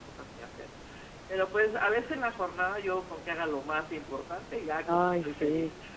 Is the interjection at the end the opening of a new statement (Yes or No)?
Yes